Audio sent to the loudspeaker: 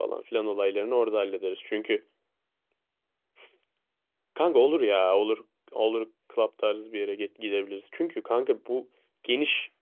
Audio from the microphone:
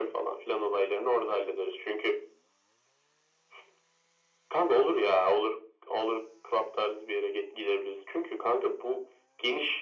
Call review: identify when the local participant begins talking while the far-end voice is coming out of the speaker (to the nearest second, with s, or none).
none